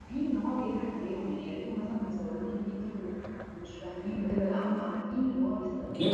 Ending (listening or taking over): taking over